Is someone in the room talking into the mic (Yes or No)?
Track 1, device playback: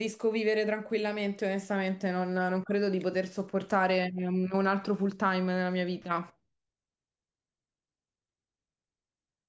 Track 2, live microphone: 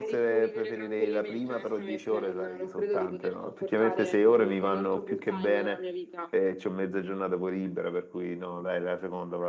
Yes